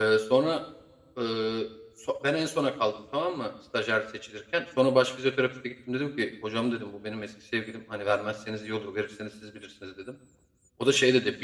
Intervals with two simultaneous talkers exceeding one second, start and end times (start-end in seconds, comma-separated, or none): none